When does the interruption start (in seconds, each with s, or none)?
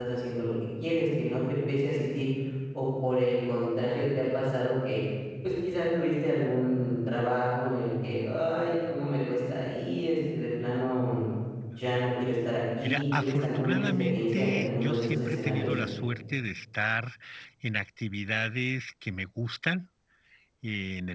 12.8 s